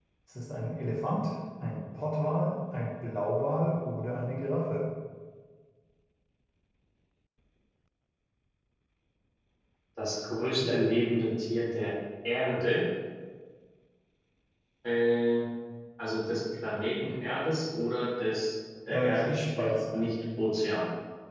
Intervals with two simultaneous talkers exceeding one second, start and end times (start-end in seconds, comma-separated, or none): 18.9-20.1